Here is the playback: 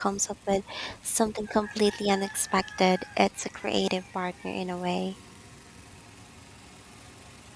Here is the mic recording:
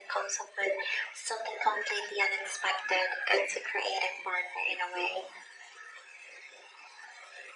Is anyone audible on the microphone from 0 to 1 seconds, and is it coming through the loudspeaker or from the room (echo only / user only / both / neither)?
echo only